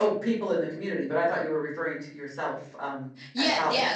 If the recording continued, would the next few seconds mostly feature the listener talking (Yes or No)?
Yes